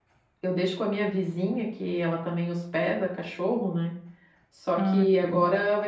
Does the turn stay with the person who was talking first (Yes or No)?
Yes